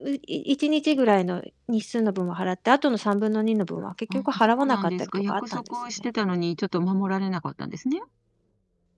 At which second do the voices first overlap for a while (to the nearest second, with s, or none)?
4 s